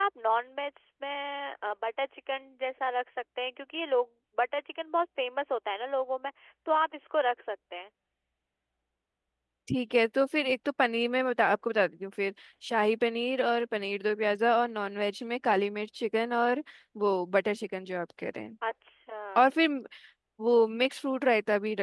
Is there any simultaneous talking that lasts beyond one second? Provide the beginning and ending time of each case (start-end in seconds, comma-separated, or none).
none